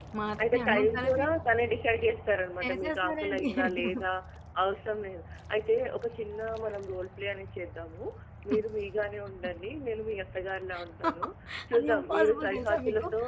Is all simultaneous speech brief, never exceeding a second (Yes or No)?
No